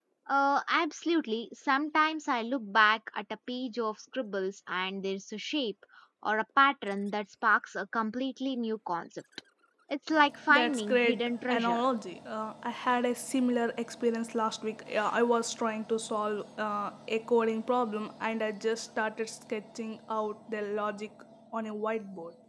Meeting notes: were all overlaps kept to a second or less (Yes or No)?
No